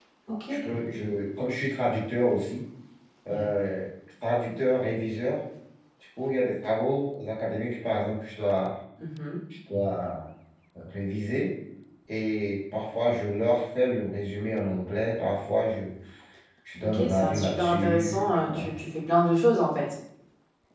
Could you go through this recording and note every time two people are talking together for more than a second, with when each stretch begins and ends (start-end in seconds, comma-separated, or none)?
16.8-18.7